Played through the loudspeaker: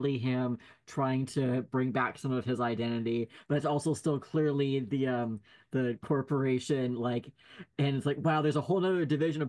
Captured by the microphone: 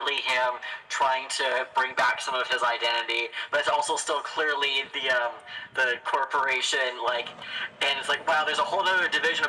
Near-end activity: none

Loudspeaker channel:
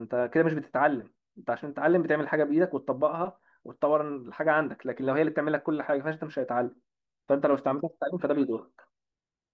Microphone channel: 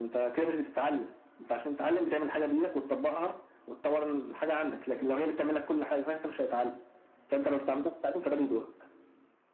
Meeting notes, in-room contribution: none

